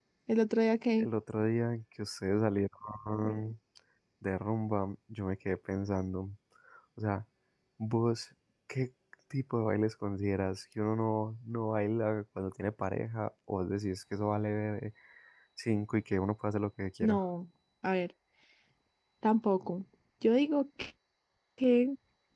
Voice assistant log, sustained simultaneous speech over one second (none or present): none